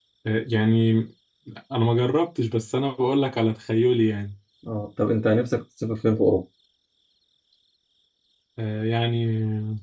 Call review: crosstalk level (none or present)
none